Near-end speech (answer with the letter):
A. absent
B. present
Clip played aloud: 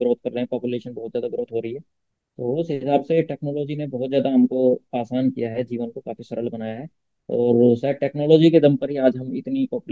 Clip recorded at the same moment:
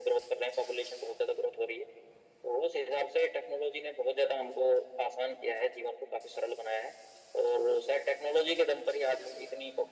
A